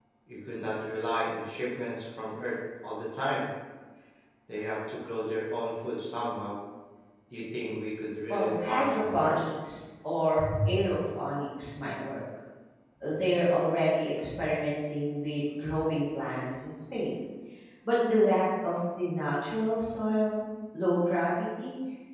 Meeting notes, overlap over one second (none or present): present